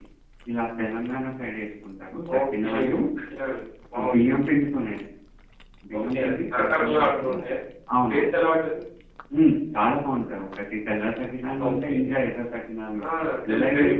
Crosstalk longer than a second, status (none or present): present